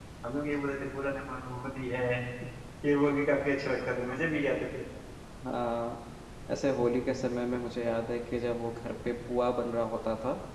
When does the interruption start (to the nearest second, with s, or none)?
none